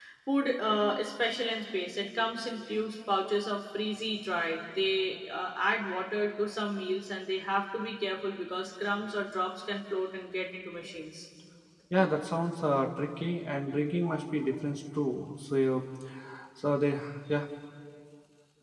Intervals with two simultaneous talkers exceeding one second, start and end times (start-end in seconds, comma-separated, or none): none